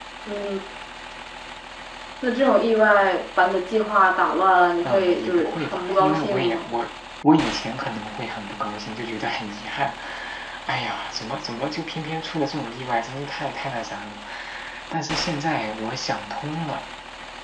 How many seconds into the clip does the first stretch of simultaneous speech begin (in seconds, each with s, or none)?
4.8 s